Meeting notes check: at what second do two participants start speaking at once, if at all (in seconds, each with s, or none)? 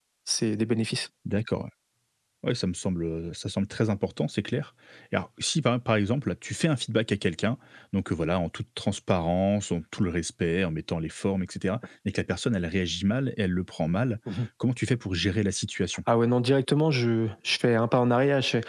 none